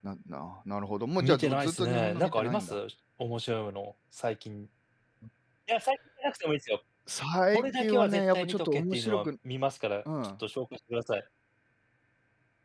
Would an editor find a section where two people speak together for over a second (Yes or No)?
Yes